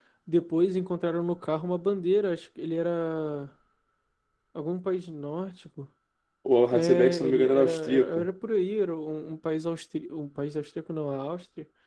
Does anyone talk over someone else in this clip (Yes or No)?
Yes